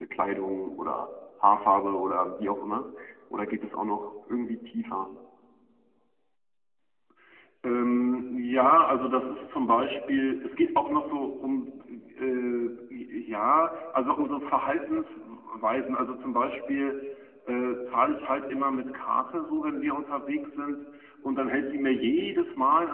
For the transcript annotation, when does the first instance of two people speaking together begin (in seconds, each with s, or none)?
none